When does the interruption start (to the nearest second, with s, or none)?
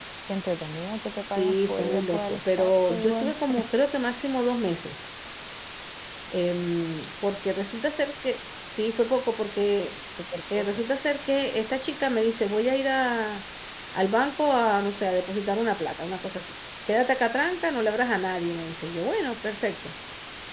1 s